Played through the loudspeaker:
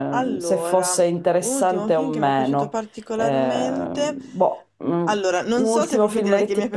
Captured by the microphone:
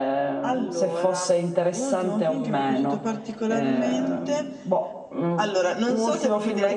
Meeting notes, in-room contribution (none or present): none